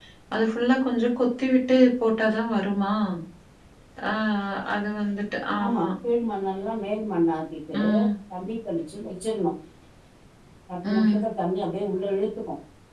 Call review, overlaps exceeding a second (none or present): none